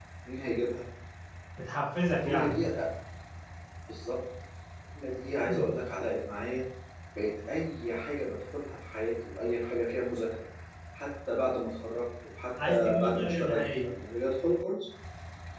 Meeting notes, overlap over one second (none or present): present